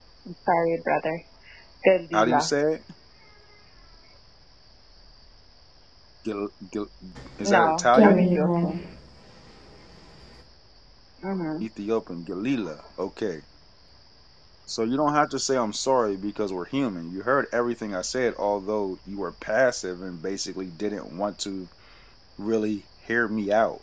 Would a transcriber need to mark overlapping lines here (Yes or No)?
Yes